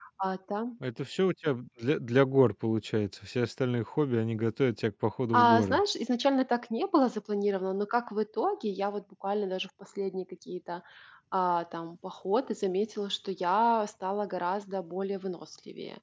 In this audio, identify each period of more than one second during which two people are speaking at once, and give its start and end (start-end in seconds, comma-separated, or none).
none